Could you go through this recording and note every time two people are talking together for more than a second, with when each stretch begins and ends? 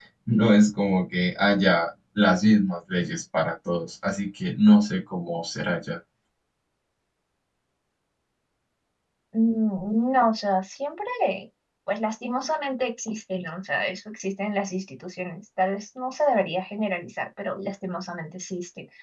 none

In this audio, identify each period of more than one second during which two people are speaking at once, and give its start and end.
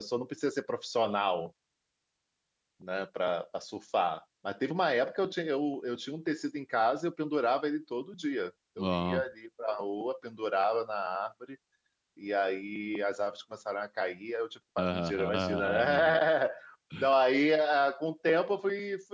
14.8-16.2

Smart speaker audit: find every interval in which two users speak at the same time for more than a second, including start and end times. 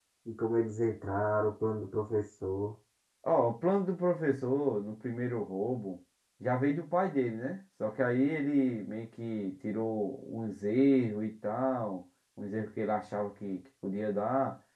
none

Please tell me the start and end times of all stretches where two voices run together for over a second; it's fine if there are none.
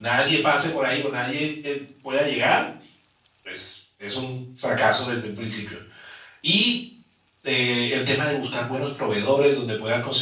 none

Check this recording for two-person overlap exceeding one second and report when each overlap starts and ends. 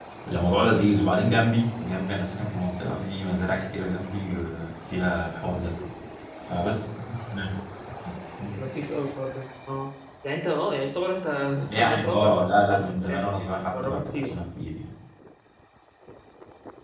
11.7-14.3

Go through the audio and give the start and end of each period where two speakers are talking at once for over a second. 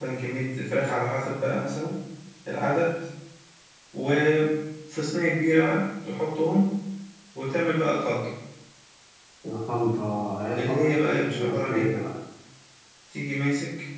10.6-12.0

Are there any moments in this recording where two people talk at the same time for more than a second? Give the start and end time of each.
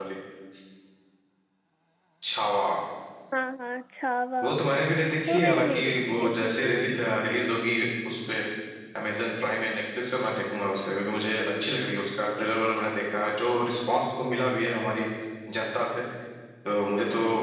5.3-6.8

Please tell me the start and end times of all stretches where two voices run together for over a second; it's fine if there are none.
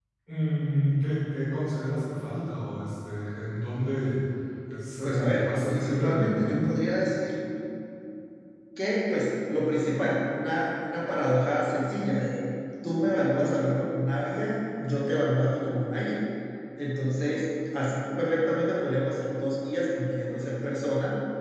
5.0-6.7

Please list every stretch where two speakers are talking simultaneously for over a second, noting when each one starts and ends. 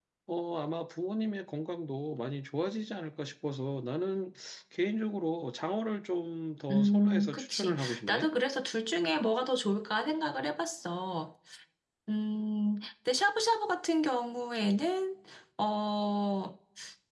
6.7-8.3

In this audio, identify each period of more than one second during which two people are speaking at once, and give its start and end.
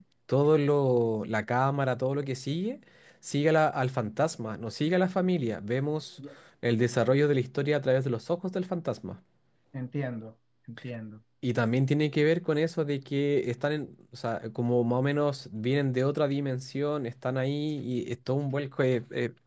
none

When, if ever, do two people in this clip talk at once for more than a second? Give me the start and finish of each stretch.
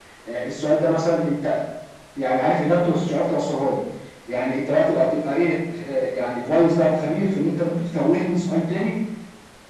none

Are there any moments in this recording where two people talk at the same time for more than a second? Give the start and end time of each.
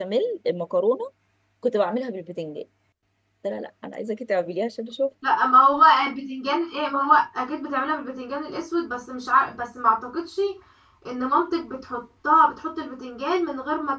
none

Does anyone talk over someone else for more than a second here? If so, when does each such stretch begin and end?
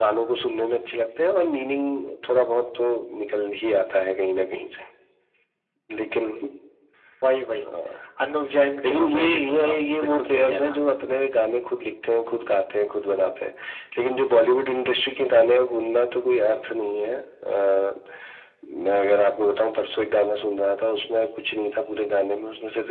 8.9-10.8

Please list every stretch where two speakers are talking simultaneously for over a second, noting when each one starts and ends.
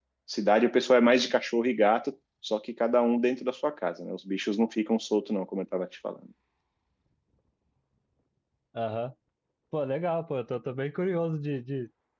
none

